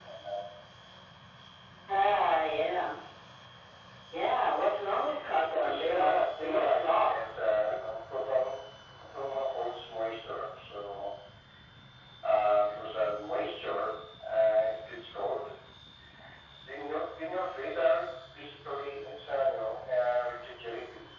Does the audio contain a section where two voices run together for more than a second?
Yes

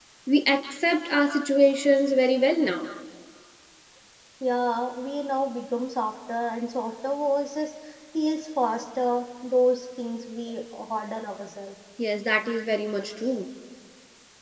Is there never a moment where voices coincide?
Yes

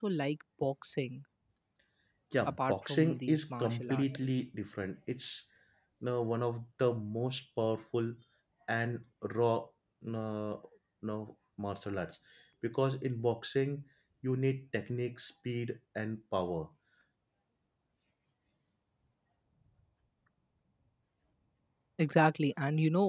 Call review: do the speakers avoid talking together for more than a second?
No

